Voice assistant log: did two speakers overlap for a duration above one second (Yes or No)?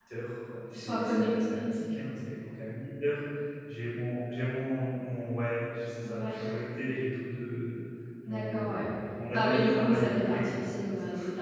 Yes